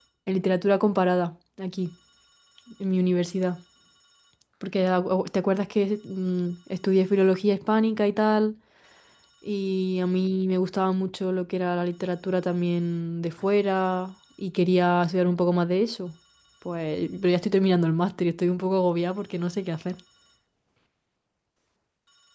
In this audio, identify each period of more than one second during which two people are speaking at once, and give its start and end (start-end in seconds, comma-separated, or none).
none